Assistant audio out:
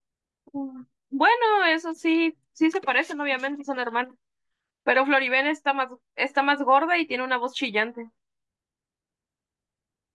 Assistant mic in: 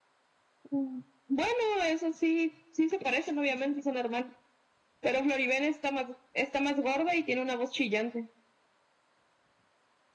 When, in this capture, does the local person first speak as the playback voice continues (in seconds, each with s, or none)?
none